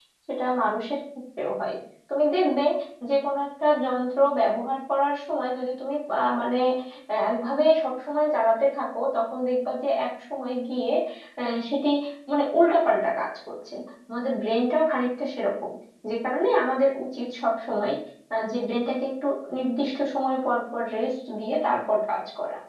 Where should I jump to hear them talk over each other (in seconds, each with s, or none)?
none